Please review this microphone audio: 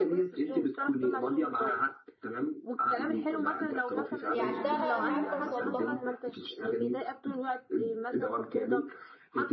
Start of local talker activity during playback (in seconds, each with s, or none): 4.3 s